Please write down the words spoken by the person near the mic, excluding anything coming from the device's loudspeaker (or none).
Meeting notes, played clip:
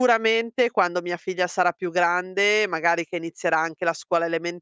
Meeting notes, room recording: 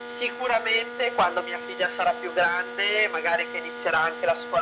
none